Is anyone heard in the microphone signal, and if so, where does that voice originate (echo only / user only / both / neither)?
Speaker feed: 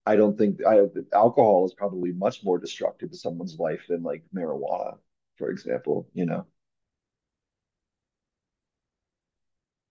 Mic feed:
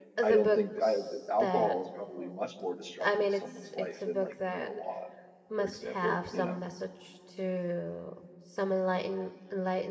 both